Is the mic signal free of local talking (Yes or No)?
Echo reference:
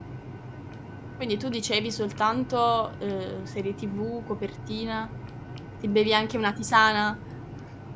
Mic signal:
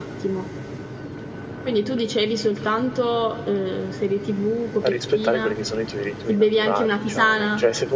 No